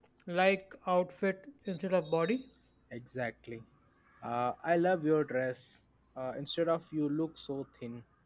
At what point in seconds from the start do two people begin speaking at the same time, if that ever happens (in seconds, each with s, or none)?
none